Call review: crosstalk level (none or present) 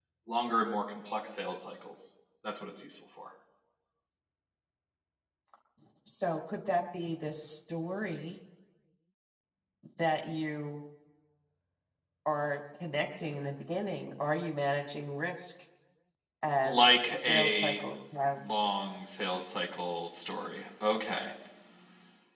present